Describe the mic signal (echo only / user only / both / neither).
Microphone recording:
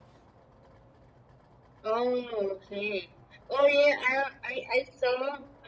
echo only